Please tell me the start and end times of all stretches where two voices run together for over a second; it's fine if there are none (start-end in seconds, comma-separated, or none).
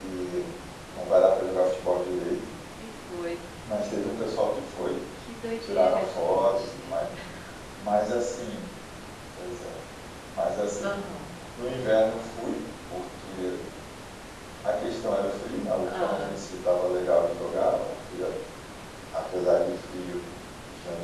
5.7-7.1